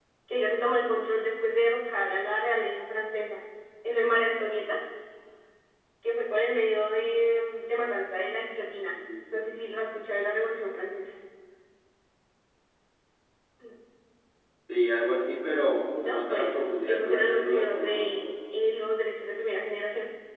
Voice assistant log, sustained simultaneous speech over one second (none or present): present